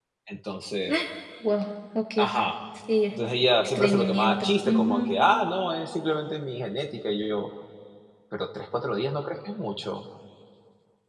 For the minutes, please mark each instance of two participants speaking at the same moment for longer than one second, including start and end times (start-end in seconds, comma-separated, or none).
3.6-5.1